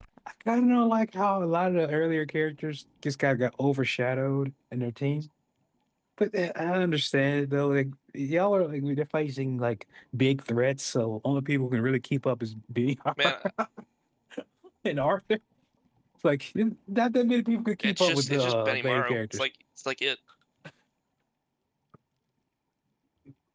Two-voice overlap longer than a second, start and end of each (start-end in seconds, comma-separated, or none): 17.8-19.4